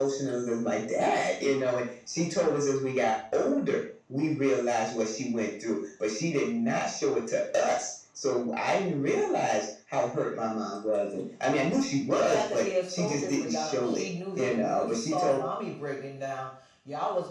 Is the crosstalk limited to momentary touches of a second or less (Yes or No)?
No